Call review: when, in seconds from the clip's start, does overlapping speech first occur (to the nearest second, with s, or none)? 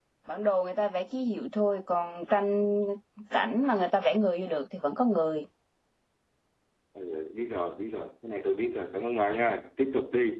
none